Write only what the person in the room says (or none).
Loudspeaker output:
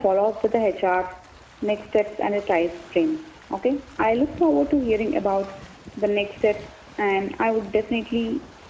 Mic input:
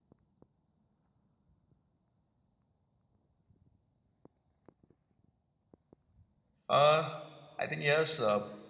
uh, i think yes uh,